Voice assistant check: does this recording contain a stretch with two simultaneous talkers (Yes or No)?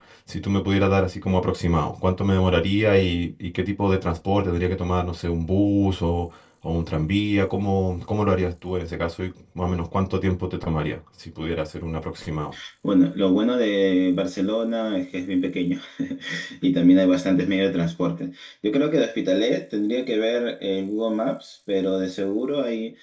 No